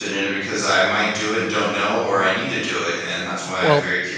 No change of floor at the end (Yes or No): No